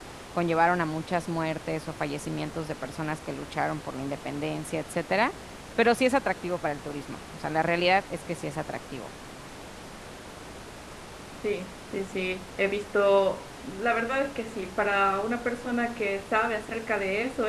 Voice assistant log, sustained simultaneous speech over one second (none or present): none